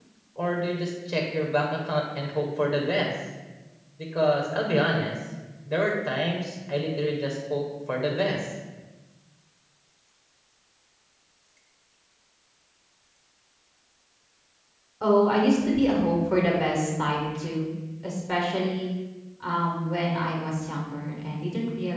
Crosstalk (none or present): none